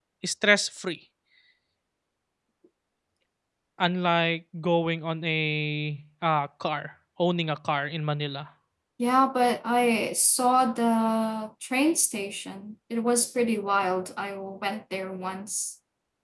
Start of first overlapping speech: none

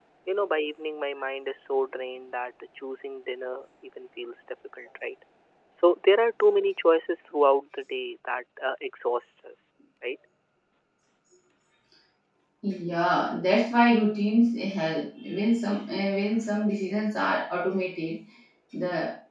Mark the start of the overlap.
none

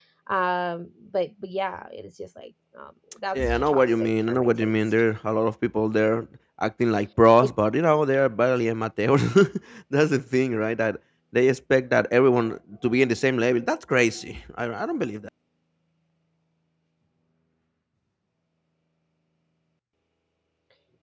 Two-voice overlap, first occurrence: 3.3 s

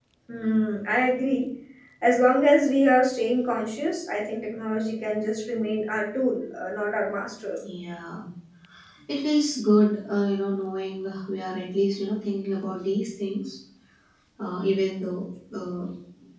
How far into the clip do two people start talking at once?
none

